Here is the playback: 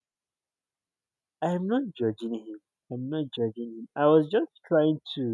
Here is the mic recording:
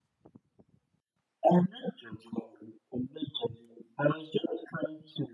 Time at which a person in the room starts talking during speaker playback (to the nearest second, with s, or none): none